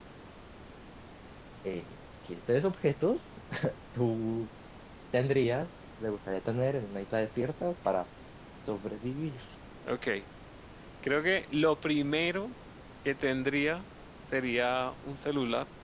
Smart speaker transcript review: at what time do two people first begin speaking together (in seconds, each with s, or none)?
none